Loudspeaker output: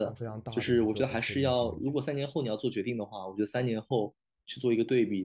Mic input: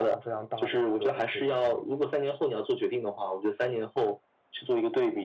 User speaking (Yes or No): No